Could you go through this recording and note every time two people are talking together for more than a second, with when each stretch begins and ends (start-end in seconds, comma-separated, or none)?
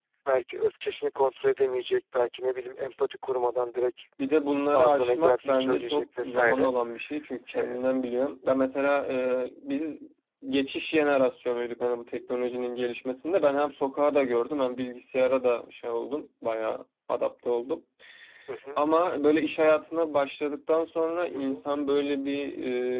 4.7-6.7